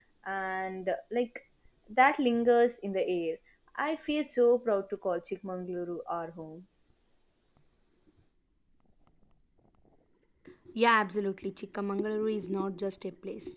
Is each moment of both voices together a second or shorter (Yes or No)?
Yes